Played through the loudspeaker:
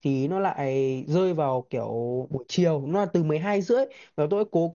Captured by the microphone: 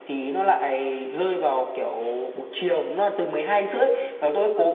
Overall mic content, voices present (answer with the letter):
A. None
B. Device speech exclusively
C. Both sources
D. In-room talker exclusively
B